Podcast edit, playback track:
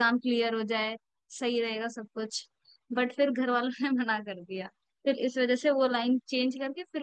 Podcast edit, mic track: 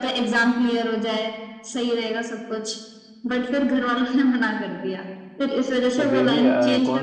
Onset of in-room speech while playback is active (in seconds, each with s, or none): 6.0 s